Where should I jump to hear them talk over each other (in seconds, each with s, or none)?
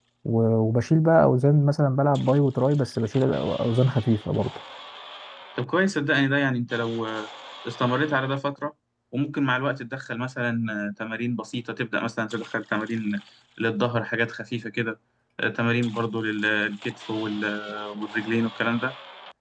none